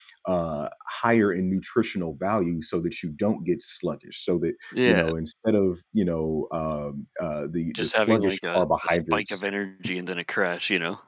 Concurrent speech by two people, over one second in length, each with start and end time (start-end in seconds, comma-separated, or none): 7.7-9.4